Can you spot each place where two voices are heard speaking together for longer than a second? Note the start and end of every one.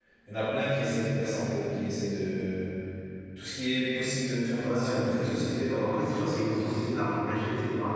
4.6-7.0

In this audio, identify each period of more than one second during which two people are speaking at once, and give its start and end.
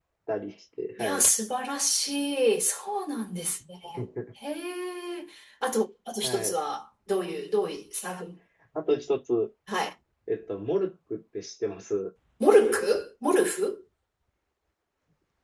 none

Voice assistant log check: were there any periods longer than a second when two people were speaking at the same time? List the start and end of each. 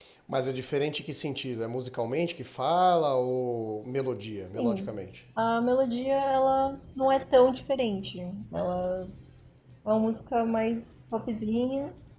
none

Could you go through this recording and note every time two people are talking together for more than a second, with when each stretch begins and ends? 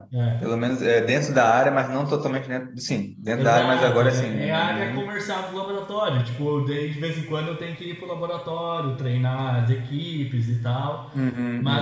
3.4-5.1

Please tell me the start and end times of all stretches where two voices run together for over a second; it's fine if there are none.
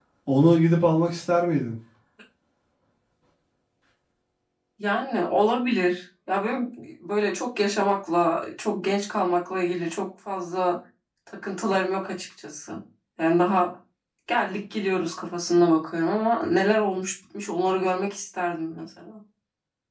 none

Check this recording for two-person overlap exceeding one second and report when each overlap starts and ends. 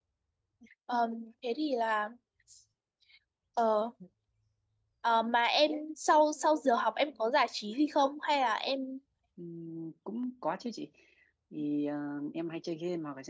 none

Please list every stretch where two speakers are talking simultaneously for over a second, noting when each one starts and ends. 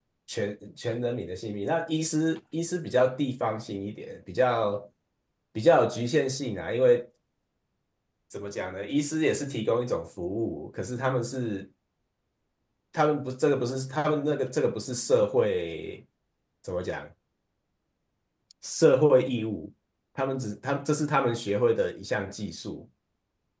none

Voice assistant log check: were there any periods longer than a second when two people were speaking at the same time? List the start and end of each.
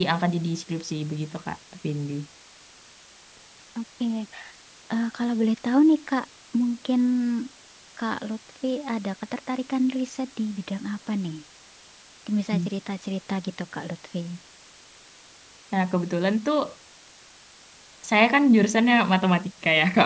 none

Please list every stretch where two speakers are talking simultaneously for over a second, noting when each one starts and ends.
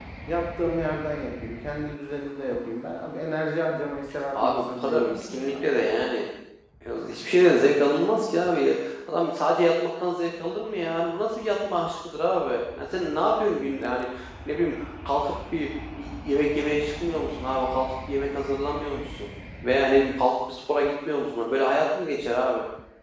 4.3-5.6

